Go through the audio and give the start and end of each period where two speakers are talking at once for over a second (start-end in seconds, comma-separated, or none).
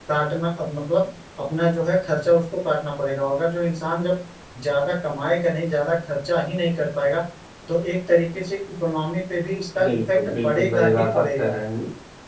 9.8-11.6